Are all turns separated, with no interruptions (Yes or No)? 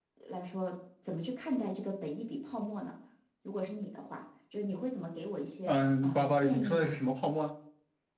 No